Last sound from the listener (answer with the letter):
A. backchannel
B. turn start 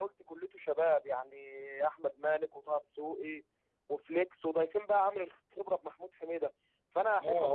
B